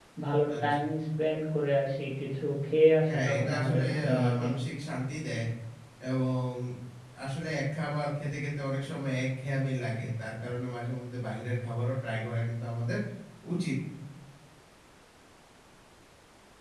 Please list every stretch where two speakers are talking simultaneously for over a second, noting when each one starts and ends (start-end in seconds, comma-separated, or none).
3.1-4.5